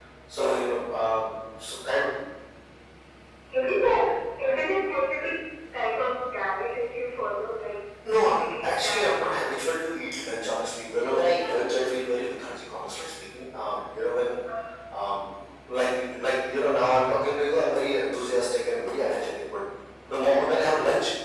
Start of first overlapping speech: 8 s

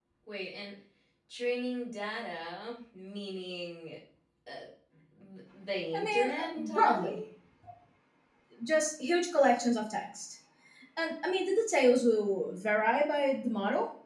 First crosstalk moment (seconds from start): 6 s

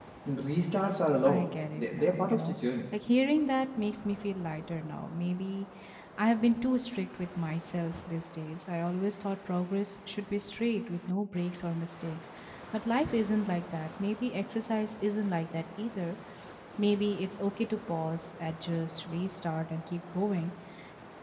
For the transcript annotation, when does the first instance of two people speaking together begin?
1 s

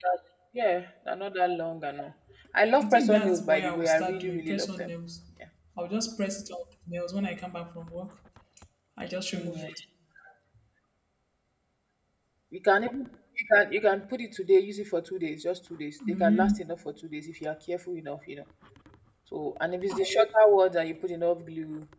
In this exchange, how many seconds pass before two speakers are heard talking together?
3 s

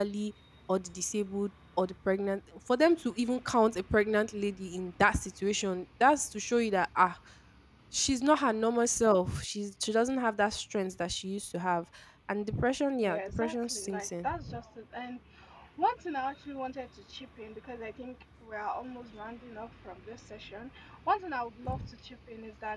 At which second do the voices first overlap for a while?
13 s

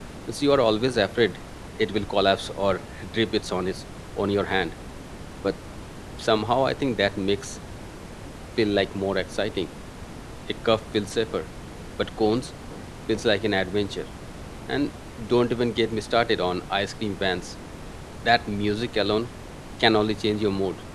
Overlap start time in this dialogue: none

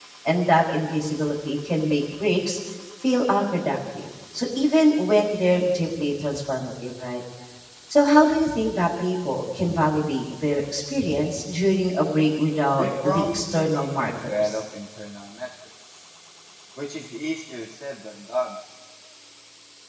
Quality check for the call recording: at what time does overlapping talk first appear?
13 s

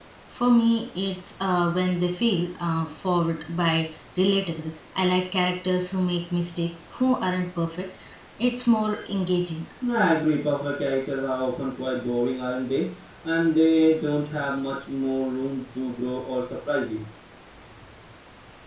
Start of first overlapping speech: none

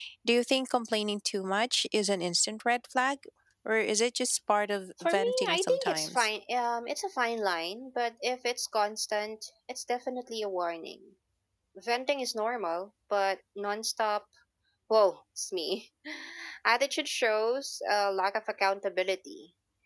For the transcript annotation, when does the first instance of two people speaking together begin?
5 s

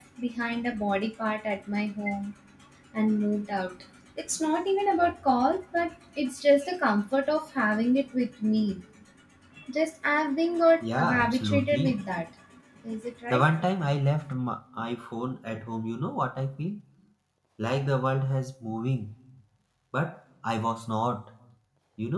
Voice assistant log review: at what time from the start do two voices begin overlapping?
11 s

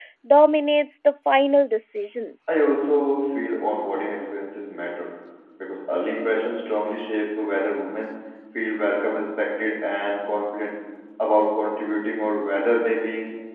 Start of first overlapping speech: none

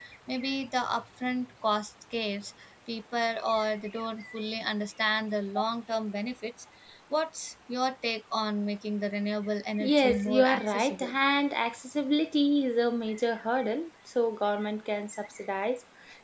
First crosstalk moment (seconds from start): 10 s

